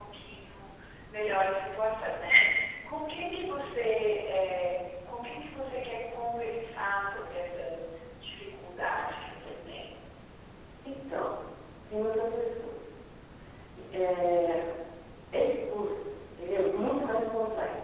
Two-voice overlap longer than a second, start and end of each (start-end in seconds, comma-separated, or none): none